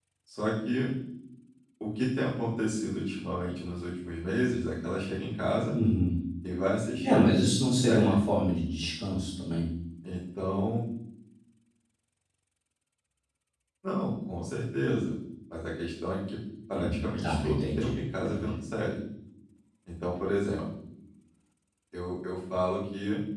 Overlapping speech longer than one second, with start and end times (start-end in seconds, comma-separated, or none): 16.7-18.5